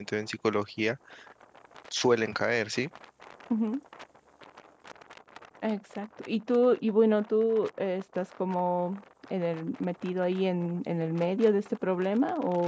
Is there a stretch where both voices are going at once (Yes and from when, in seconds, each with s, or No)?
No